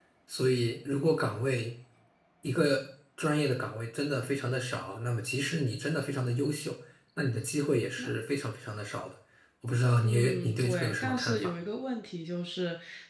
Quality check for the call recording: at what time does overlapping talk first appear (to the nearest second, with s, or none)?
10 s